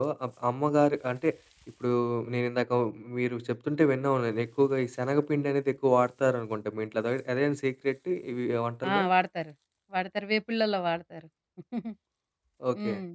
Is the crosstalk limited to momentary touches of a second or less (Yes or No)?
Yes